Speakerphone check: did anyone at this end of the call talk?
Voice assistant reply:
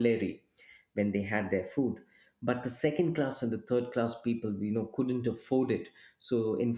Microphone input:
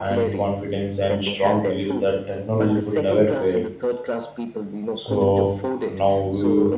Yes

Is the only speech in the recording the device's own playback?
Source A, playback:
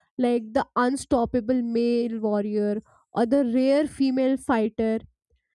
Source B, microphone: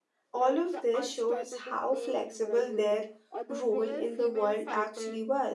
No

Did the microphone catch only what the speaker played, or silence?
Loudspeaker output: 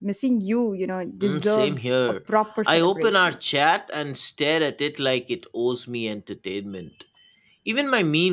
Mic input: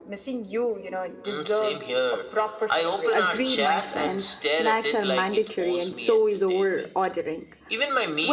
No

